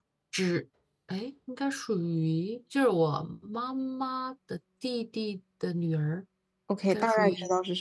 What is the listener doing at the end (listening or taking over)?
taking over